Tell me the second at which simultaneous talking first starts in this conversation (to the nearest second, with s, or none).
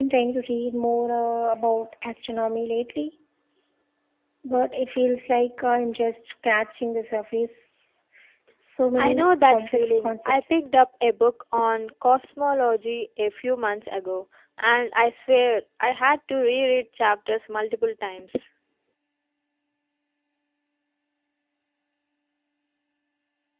9 s